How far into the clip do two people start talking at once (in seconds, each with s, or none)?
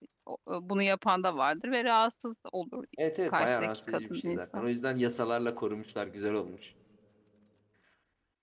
3.3 s